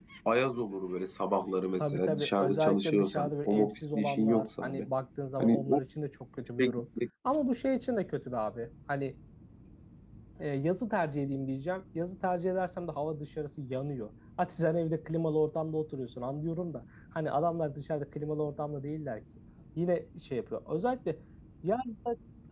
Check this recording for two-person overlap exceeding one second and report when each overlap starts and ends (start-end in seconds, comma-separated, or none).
1.8-4.9